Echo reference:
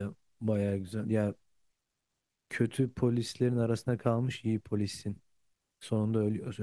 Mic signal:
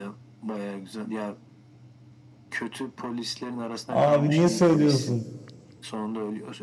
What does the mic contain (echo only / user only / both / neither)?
both